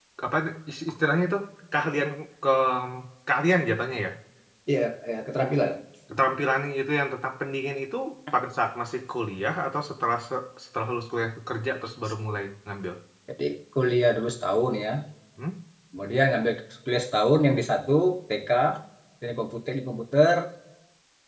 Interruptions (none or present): none